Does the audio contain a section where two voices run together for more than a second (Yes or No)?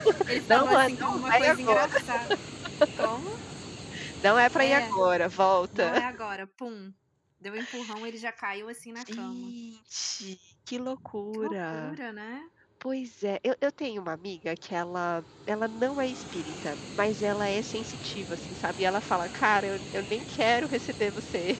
Yes